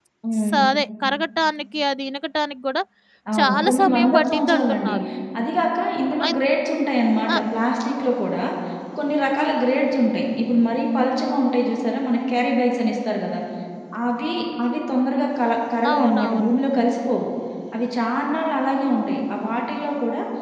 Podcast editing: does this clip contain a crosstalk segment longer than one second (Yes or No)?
Yes